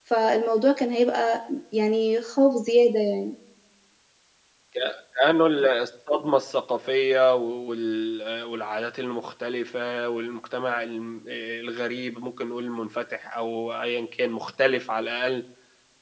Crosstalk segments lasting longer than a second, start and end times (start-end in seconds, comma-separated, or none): none